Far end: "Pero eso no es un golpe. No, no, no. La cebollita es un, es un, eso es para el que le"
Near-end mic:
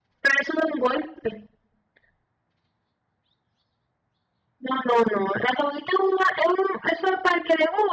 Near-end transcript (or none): none